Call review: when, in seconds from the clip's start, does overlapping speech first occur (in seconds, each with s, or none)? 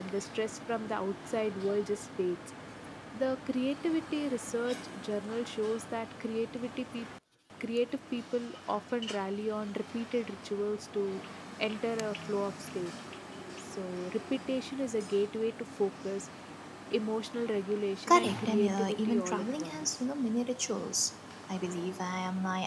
18.1 s